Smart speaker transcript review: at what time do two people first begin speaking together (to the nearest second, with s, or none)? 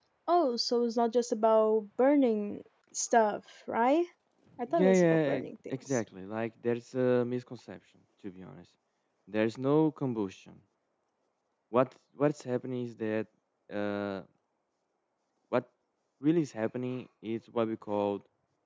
5 s